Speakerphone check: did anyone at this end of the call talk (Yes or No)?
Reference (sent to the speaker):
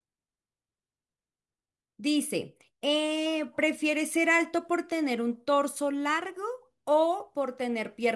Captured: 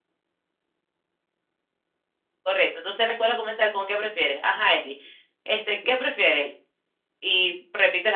Yes